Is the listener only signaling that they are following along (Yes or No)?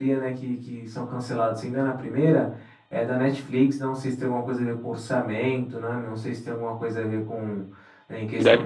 Yes